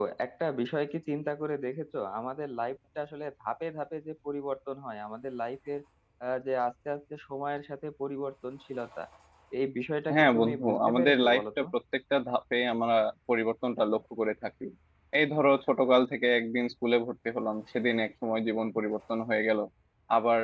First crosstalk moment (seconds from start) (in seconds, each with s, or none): 10.1 s